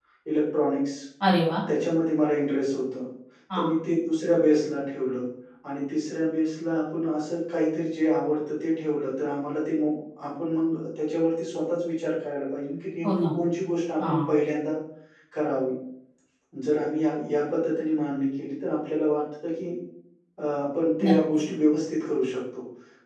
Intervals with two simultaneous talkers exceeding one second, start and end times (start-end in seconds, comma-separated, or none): none